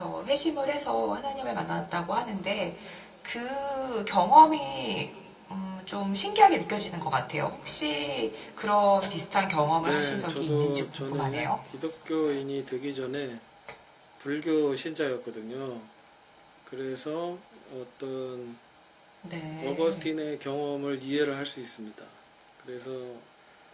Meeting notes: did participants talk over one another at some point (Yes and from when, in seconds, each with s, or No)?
Yes, from 9.8 s